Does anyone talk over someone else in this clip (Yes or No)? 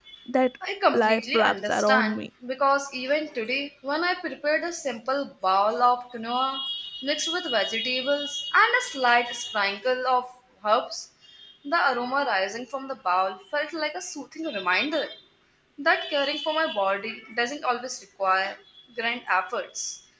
Yes